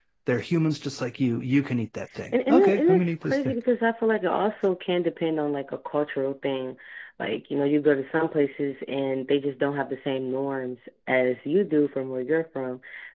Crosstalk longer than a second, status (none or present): present